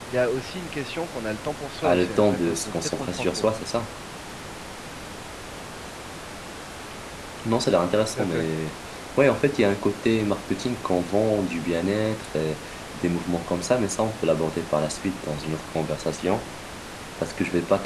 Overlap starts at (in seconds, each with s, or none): 1.8 s